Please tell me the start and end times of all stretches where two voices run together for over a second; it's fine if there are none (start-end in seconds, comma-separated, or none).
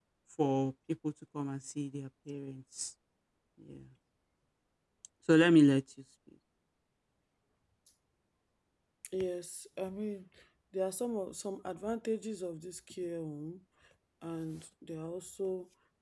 none